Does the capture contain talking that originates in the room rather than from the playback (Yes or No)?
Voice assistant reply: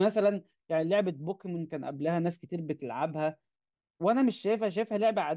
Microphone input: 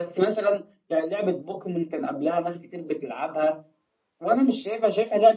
No